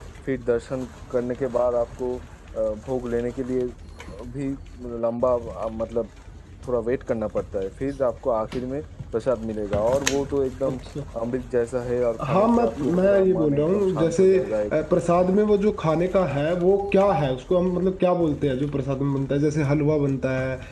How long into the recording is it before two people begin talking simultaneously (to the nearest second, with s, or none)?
12 s